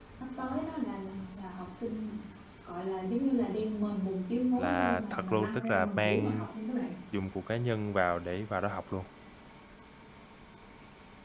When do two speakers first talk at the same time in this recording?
4.6 s

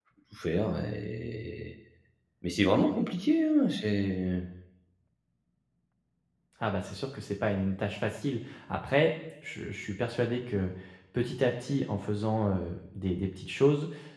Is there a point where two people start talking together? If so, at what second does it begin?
none

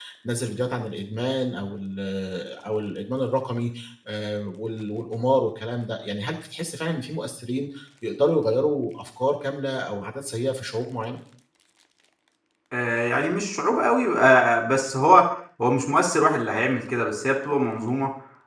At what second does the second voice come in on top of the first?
none

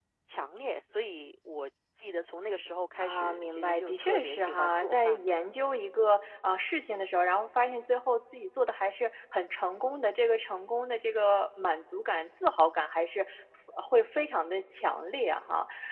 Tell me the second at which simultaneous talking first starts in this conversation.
3.0 s

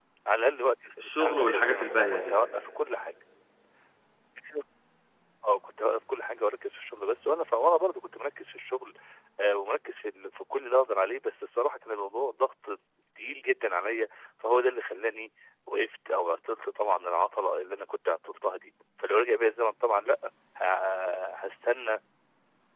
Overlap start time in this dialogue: 1.0 s

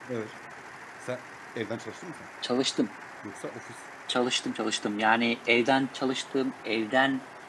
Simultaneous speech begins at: none

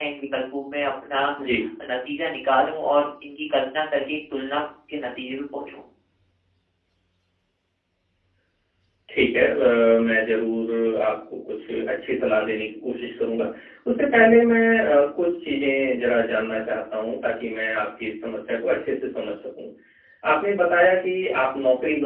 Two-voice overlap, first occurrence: none

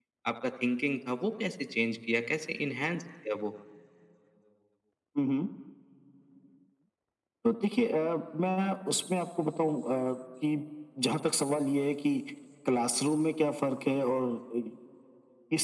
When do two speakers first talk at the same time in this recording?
none

